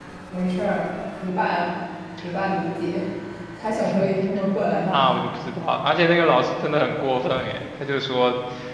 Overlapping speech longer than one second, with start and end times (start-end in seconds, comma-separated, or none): none